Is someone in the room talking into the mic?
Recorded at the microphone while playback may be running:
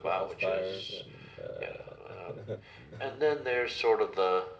Yes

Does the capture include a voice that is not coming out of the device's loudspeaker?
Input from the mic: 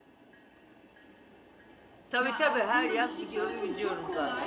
Yes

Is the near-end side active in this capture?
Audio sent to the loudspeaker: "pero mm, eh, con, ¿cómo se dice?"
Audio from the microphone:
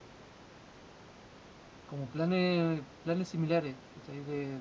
Yes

